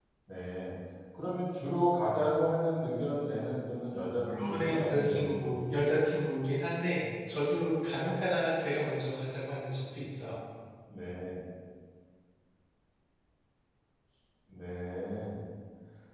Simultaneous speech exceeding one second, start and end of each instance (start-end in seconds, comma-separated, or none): 4.5-6.0